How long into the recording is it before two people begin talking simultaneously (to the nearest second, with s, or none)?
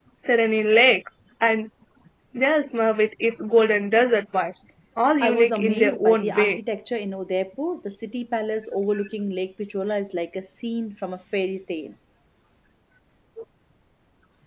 5 s